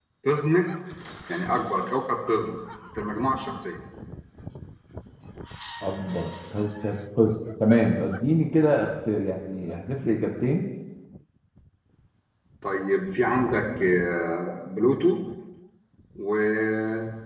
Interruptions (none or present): none